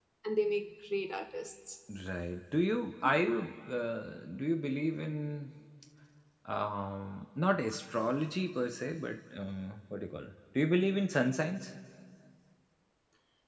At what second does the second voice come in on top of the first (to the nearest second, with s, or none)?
none